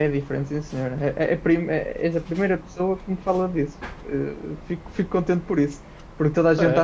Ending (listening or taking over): listening